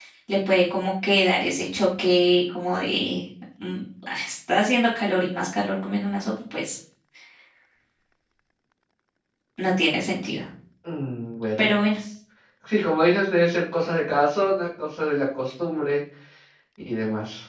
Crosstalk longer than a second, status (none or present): none